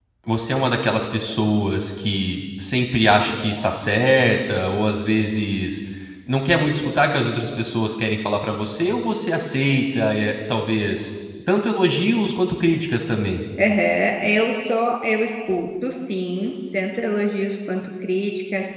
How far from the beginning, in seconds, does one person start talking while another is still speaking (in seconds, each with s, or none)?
none